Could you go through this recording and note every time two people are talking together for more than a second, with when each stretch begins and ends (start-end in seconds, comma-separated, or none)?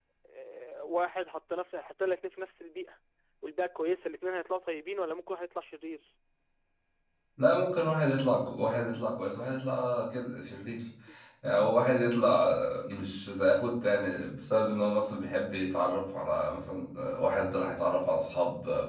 none